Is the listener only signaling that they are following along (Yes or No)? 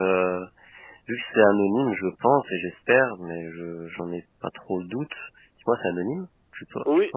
No